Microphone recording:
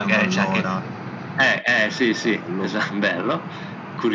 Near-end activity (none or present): none